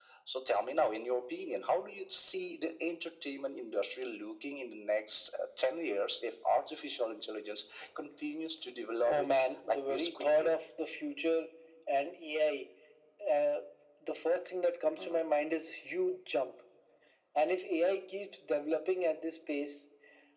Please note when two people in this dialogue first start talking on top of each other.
9.1 s

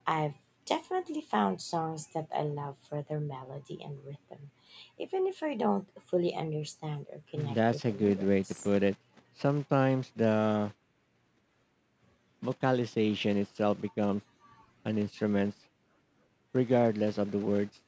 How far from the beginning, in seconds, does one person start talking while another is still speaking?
7.4 s

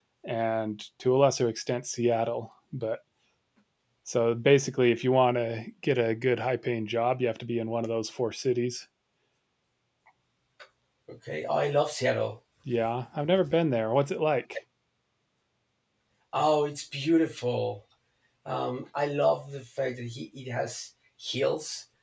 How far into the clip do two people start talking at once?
none

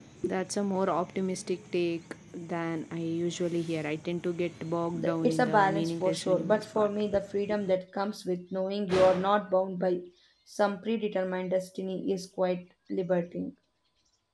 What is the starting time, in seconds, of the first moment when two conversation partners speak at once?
4.9 s

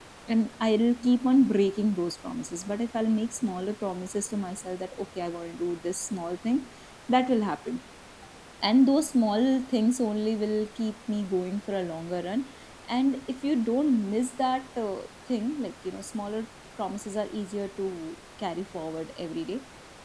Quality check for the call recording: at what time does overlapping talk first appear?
none

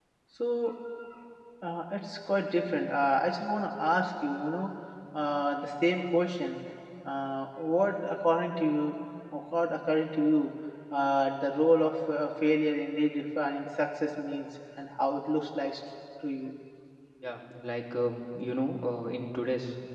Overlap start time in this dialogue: none

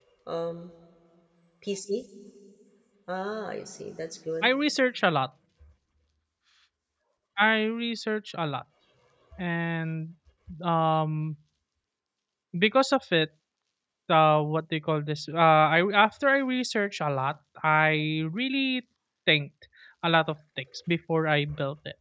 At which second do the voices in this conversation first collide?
none

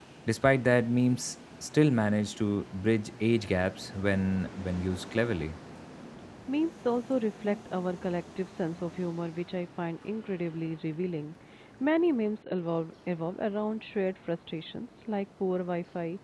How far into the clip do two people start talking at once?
none

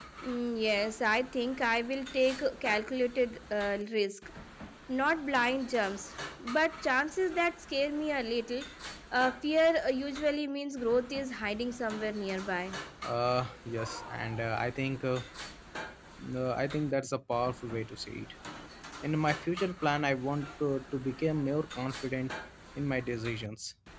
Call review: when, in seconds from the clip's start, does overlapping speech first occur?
none

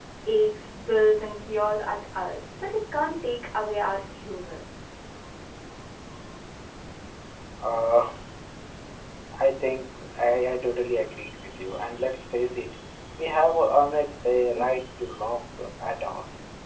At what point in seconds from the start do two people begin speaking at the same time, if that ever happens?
none

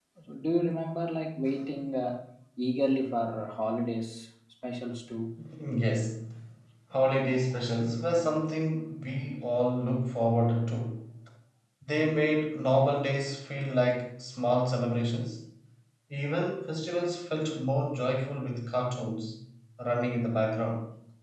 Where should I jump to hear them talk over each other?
none

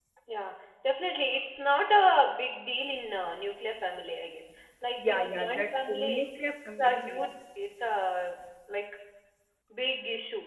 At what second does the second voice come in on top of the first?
5.0 s

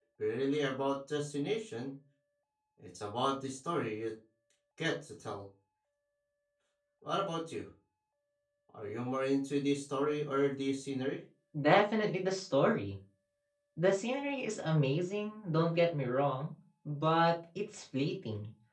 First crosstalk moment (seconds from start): none

